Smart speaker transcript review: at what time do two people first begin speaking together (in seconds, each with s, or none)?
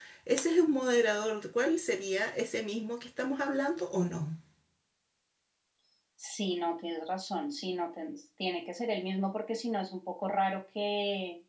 none